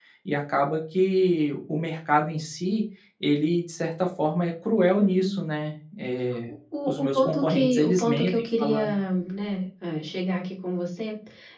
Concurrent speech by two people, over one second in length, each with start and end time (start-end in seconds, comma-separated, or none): 6.9-8.9